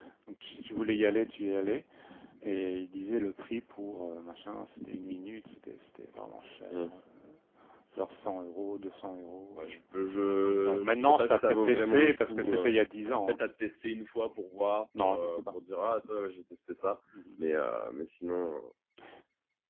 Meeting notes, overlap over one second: present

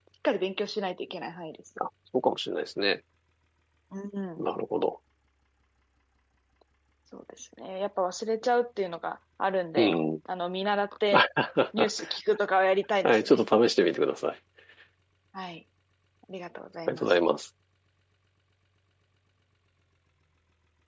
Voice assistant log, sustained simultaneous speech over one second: none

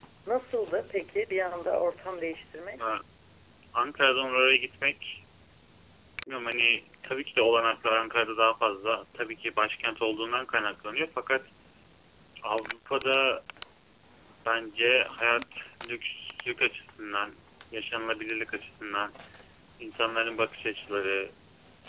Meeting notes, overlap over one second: none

